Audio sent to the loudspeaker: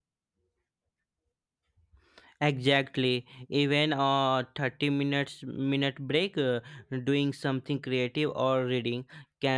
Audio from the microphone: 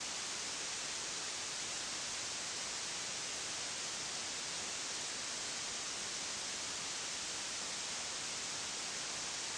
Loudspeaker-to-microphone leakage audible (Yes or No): No